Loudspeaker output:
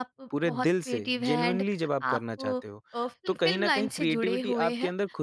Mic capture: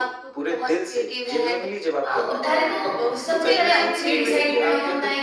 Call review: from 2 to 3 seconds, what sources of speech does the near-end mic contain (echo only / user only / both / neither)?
both